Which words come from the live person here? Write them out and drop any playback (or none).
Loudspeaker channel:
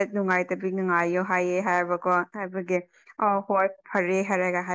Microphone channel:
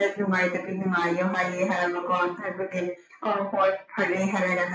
none